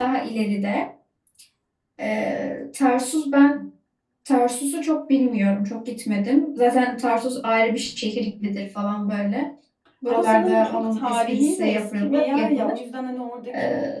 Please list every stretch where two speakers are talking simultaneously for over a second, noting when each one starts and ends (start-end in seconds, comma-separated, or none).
10.1-12.8